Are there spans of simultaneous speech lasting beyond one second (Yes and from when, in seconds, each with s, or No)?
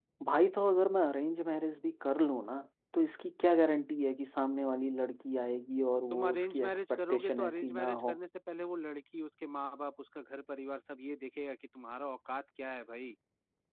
Yes, from 6.1 s